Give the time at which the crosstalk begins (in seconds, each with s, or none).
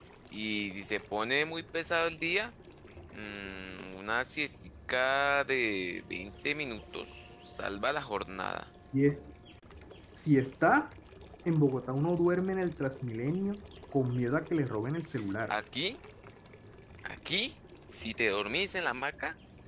none